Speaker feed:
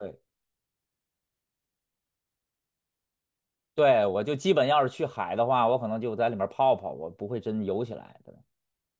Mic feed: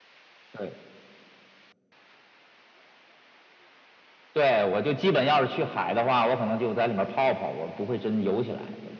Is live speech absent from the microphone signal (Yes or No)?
Yes